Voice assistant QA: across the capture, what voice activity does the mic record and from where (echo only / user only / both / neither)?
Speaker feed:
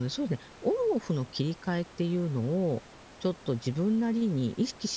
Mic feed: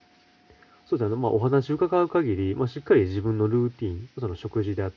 user only